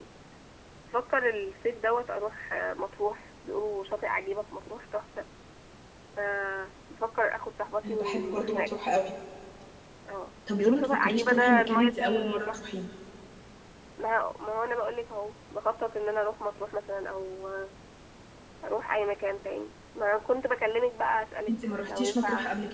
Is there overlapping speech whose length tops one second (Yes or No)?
Yes